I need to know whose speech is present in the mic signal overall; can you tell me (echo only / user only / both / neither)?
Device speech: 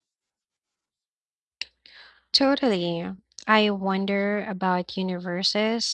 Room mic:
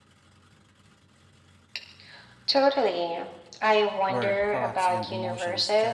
both